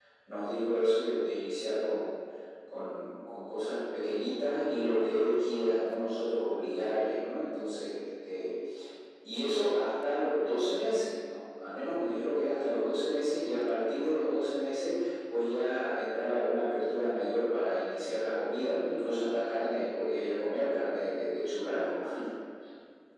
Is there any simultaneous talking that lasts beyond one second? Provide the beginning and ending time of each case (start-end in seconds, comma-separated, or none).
none